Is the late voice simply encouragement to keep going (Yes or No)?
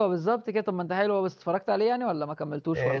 No